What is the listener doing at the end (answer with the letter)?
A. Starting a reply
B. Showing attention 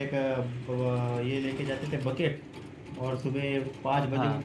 B